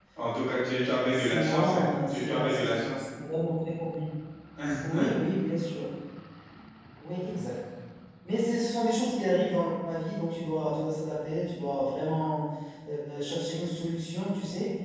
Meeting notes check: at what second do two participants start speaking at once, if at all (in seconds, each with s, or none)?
0.8 s